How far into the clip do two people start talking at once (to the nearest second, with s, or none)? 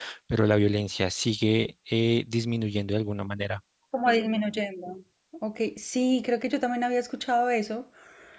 none